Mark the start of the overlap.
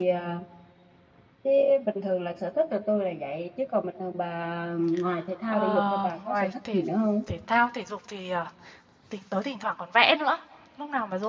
5.5 s

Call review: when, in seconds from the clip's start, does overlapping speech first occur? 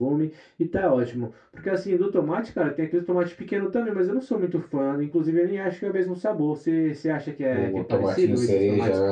7.5 s

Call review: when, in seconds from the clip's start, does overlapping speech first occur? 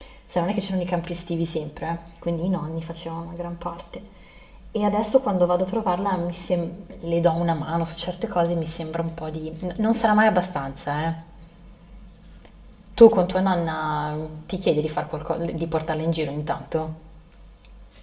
none

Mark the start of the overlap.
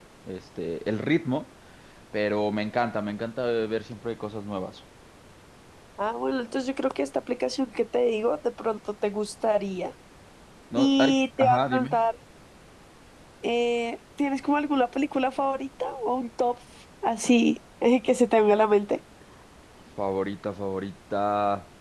10.8 s

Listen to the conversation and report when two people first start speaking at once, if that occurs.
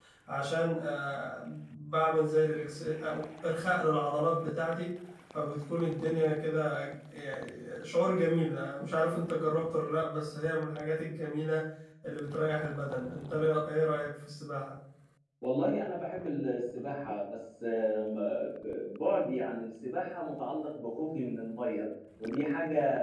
none

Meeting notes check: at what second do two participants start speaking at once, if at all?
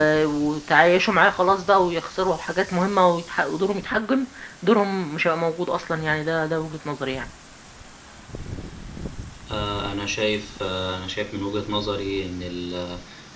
none

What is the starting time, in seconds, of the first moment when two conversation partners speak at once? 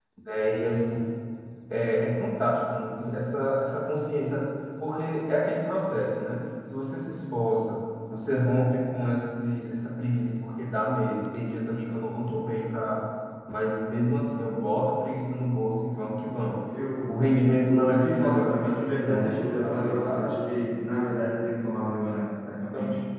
17.1 s

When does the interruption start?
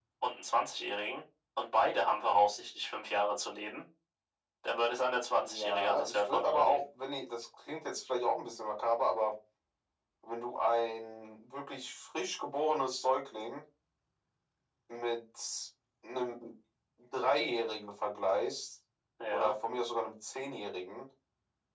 5.4 s

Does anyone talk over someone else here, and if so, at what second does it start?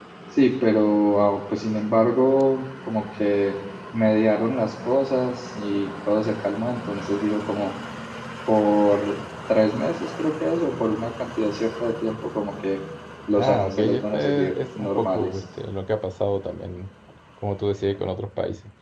13.4 s

